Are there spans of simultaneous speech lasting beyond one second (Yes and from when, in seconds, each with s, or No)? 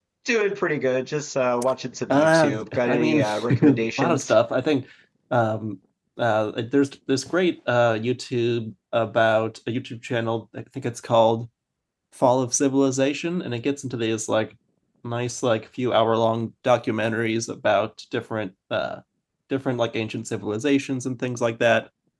Yes, from 2.1 s